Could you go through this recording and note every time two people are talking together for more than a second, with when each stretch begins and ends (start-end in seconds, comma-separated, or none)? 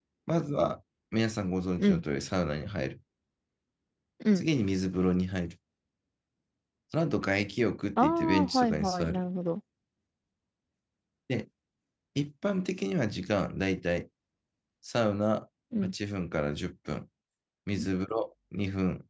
8.0-9.2